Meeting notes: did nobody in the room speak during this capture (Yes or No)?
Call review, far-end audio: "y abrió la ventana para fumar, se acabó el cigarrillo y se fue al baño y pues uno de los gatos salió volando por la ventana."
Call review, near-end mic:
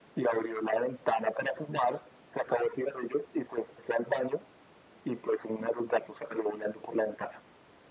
Yes